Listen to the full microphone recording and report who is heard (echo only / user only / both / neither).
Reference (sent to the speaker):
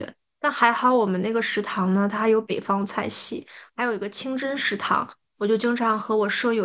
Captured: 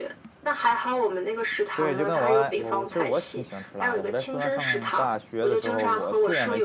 both